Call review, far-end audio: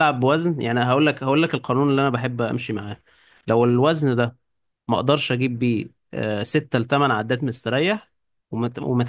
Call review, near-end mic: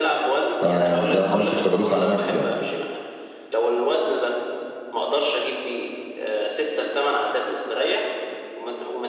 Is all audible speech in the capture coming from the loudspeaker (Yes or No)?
No